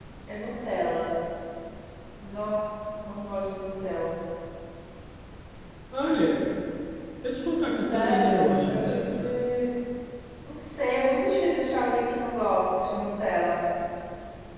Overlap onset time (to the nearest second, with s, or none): 8 s